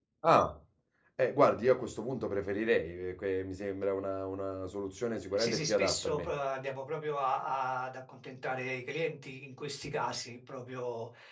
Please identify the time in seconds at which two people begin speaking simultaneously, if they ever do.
5.1 s

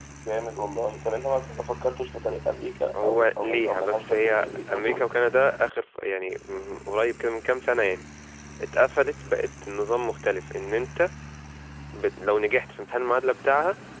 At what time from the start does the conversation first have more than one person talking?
2.9 s

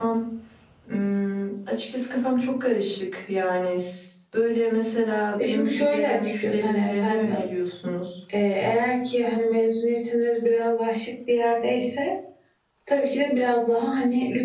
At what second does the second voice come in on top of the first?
5.4 s

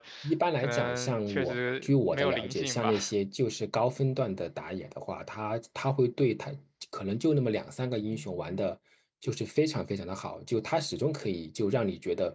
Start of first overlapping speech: 0.6 s

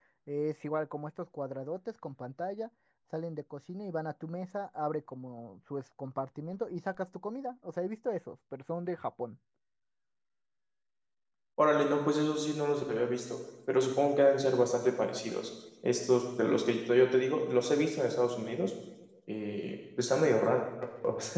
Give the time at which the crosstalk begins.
none

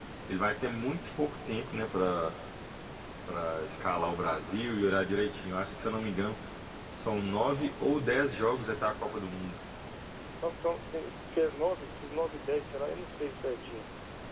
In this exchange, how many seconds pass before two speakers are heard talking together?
none

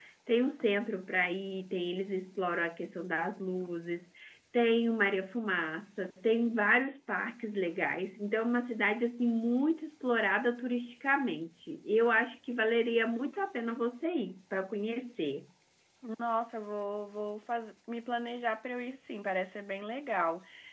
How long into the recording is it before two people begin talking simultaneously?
none

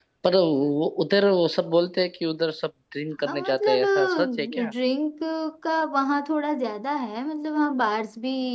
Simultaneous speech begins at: 3.2 s

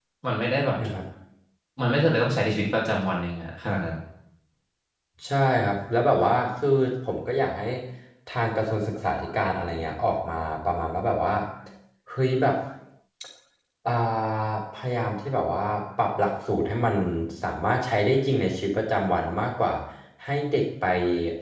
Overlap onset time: none

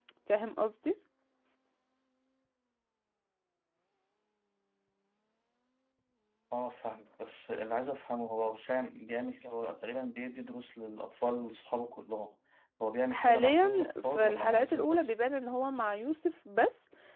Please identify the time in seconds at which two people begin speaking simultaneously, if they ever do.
13.1 s

